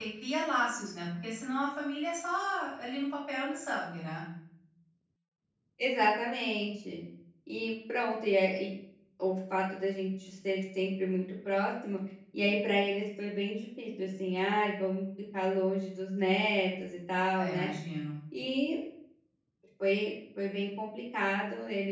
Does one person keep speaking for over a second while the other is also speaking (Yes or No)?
No